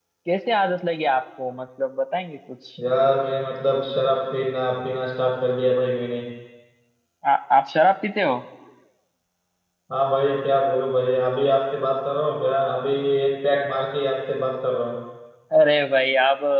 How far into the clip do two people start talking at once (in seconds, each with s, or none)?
none